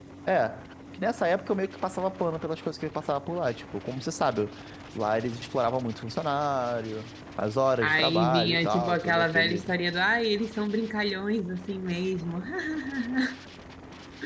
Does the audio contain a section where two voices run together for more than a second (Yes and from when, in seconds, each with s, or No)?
Yes, from 7.8 s